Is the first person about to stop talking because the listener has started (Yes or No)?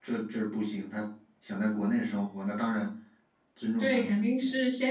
Yes